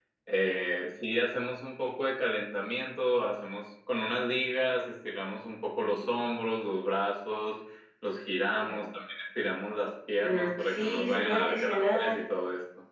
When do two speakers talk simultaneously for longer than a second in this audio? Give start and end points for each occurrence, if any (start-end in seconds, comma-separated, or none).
10.2-12.2